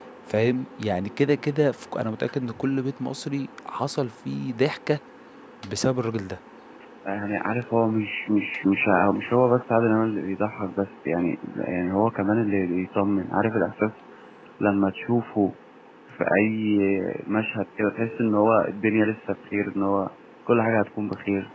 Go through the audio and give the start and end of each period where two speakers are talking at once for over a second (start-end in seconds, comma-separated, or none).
none